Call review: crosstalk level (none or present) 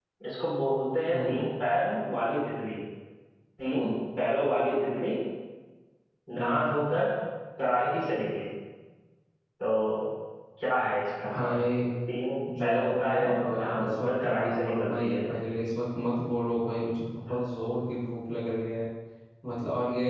present